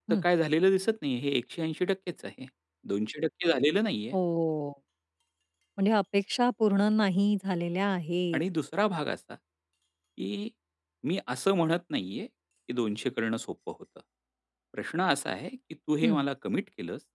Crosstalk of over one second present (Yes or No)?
No